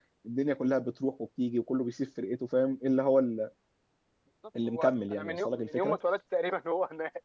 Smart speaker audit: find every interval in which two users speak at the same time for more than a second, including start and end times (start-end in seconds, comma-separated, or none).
4.7-6.0